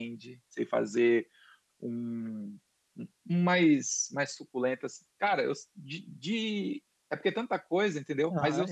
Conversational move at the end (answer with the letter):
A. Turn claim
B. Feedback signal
A